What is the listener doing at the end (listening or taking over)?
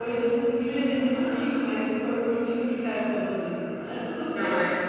taking over